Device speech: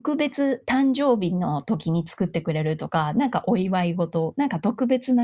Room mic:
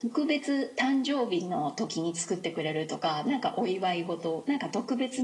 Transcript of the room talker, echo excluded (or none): none